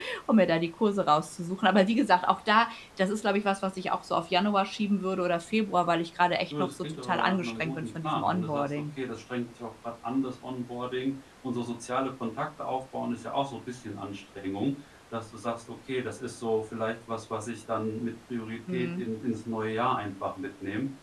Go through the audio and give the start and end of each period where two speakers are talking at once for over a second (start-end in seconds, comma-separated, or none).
6.5-8.7